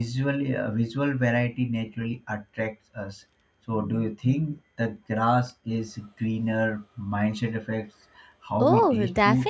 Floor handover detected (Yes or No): Yes